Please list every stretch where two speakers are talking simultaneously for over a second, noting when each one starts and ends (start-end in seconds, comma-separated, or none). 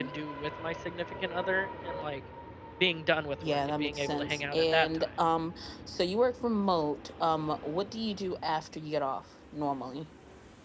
3.4-5.1